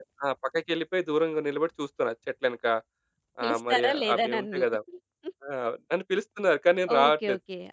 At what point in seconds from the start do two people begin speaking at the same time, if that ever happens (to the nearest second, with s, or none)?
3 s